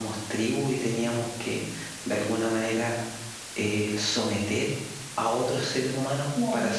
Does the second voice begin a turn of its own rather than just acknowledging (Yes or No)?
No